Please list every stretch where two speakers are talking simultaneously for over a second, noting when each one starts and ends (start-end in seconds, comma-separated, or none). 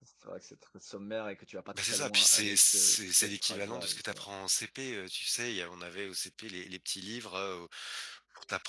1.7-4.3